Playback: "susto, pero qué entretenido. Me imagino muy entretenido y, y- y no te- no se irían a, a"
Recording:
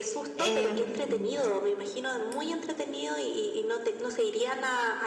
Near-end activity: present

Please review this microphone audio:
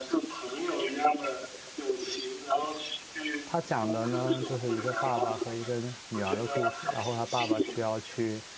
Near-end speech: present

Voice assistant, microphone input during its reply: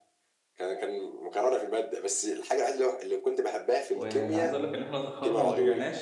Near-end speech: present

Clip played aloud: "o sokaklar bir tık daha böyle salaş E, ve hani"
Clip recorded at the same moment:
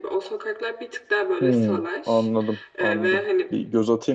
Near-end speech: present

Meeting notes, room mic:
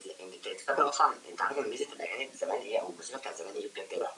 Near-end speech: none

